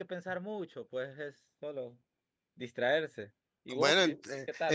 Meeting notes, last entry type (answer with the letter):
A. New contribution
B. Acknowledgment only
A